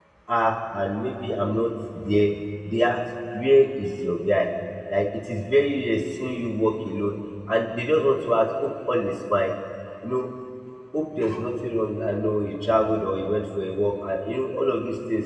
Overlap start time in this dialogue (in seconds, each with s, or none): none